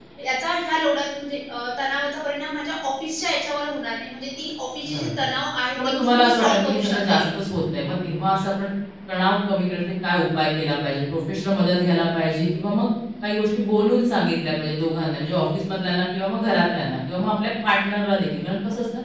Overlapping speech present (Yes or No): Yes